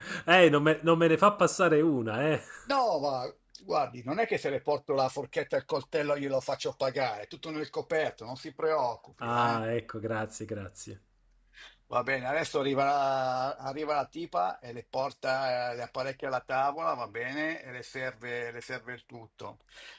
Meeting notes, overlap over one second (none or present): none